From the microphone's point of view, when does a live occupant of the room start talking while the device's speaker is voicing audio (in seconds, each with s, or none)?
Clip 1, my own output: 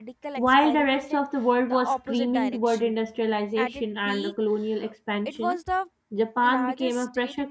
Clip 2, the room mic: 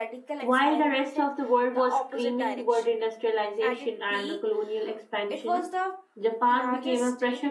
none